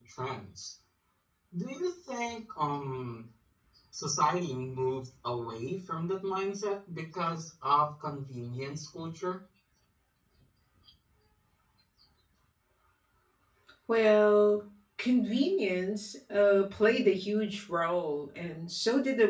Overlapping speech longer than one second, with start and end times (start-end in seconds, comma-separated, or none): none